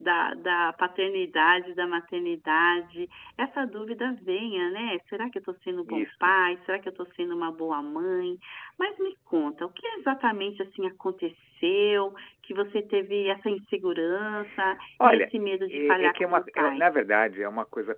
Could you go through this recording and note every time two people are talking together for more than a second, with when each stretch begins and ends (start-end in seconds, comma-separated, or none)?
15.0-16.8